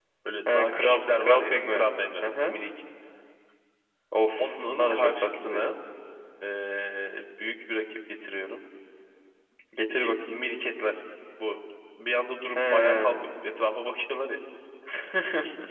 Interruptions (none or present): present